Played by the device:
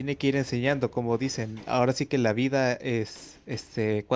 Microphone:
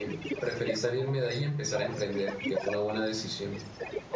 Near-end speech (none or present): present